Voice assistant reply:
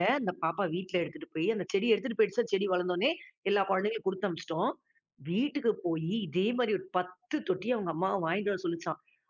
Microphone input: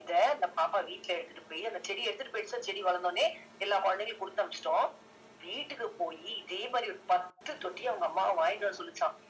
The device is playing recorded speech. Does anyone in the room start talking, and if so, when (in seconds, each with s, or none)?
none